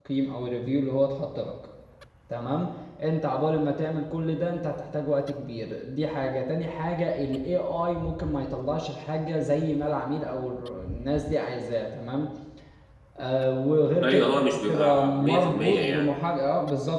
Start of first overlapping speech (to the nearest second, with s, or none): 14 s